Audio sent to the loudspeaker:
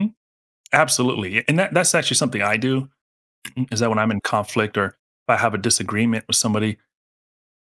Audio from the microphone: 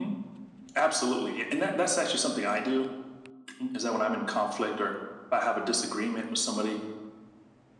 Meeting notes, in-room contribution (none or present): none